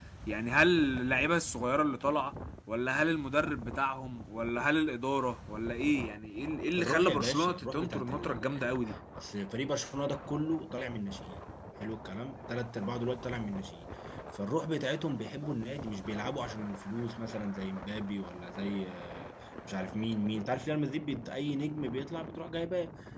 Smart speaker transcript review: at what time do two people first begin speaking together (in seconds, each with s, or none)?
6.7 s